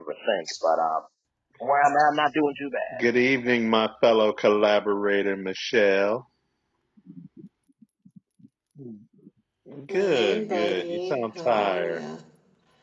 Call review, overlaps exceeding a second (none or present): present